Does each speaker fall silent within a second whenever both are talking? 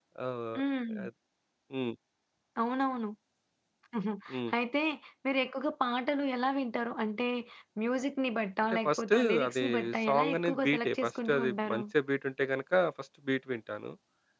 No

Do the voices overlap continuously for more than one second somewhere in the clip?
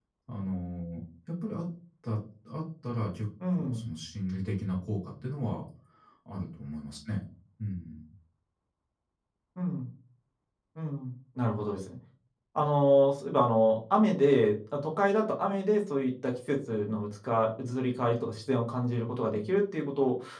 No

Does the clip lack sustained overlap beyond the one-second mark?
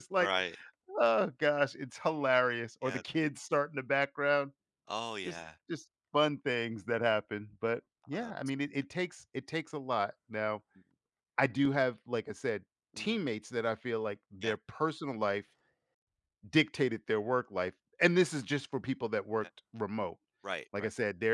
Yes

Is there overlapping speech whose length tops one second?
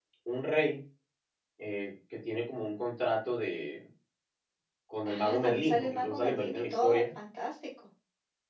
Yes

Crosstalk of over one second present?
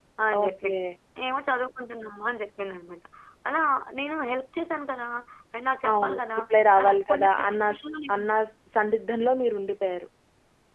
Yes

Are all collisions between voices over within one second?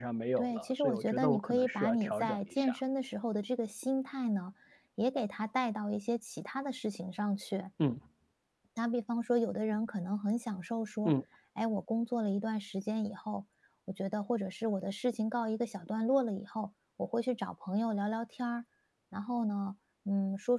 No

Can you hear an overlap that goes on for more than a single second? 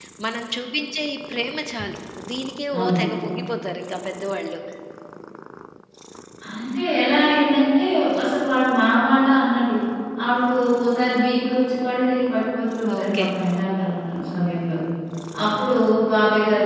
No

